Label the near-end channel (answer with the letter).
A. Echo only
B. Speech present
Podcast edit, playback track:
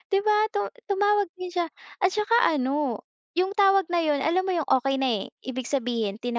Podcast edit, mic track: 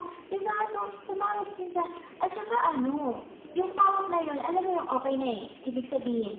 A